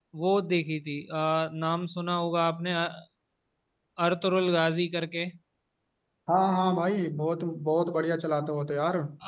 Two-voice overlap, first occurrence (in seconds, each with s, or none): none